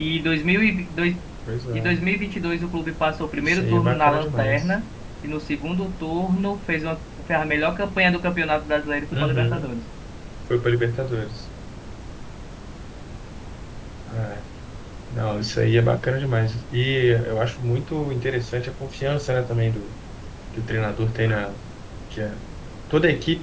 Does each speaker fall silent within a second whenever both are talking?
No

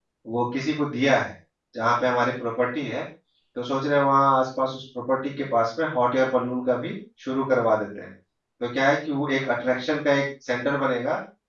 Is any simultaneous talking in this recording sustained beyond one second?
No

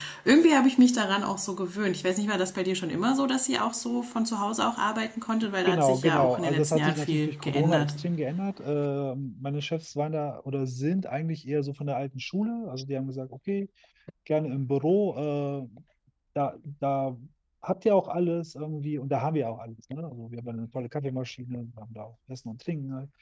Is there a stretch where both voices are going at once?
Yes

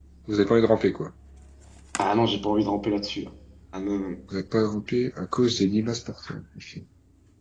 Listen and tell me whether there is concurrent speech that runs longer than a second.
No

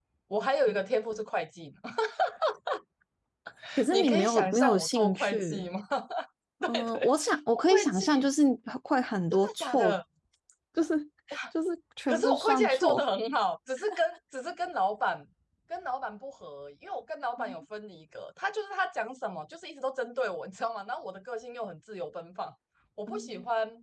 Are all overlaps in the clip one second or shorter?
No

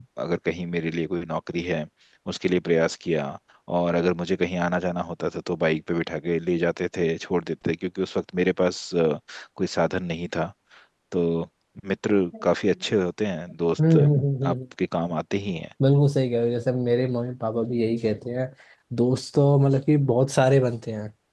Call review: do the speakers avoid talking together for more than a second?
Yes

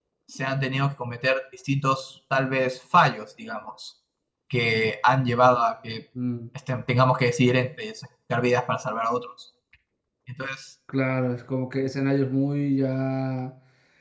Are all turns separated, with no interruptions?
Yes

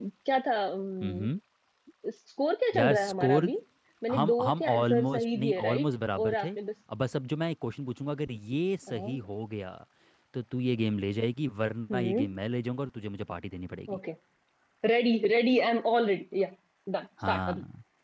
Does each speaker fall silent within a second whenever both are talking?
No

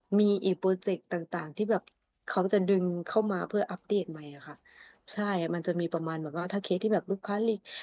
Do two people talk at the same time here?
No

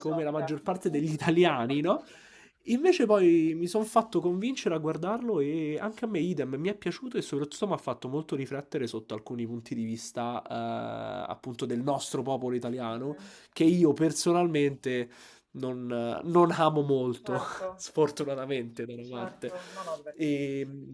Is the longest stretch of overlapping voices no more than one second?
No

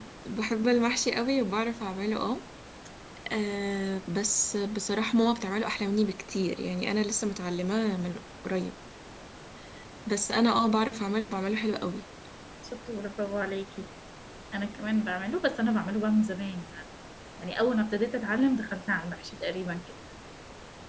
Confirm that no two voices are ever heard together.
Yes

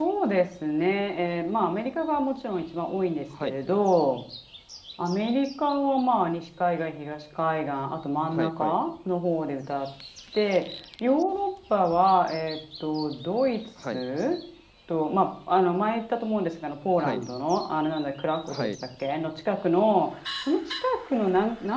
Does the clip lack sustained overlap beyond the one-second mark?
Yes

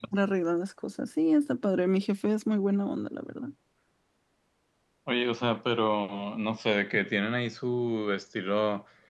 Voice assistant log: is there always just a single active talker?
Yes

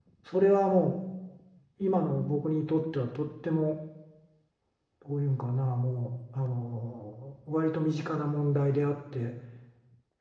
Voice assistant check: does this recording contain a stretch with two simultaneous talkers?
No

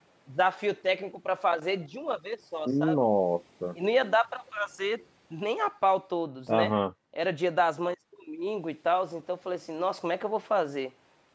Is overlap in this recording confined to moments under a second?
Yes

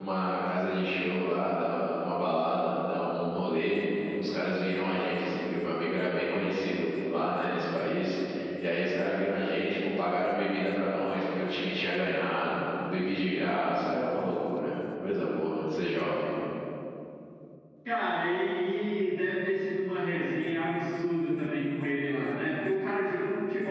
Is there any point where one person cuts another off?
No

